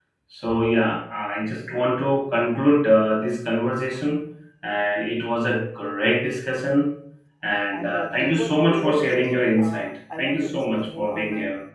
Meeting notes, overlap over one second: present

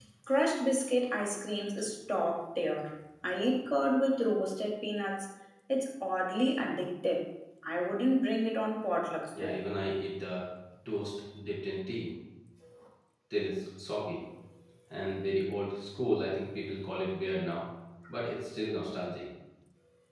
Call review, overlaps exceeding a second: none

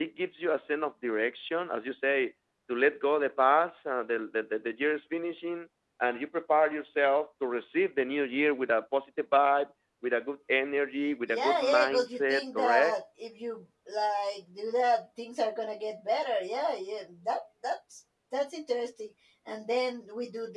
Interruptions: present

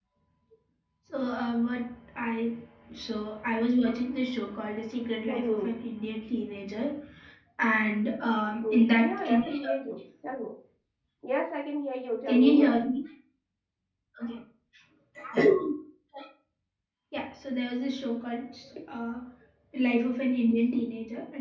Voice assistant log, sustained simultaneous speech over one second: present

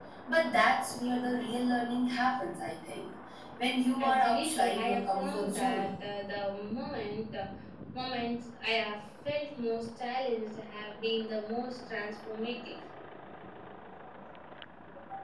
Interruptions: present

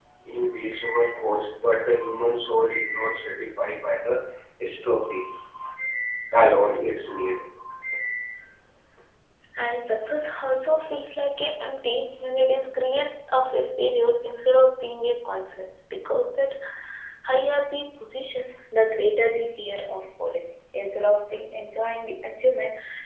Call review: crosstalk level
none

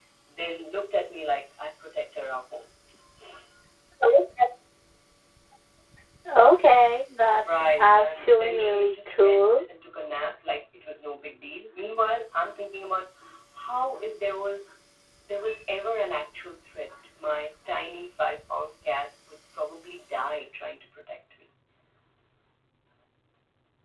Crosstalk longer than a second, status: present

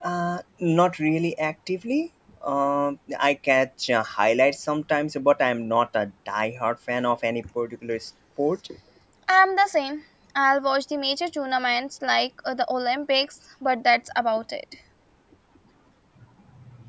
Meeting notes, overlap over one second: none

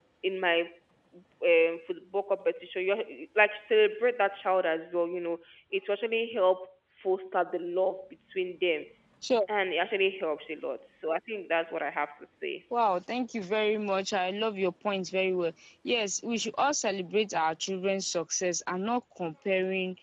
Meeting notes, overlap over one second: none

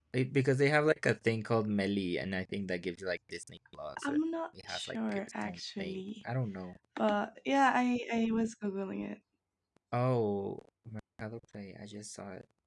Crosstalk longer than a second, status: present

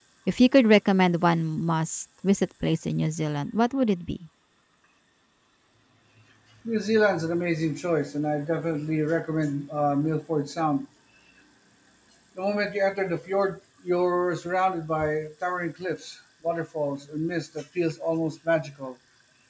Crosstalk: none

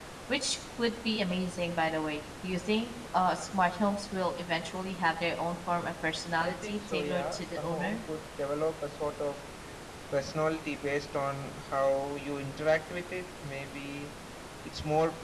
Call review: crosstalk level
present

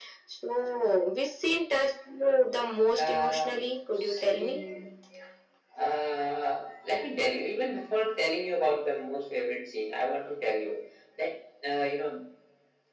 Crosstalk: present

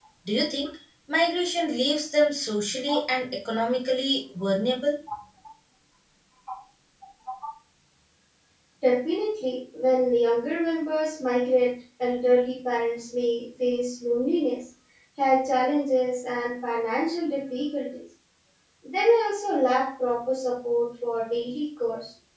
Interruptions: none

